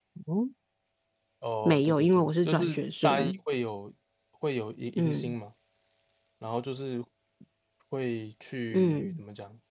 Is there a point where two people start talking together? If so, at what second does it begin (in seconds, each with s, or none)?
1.6 s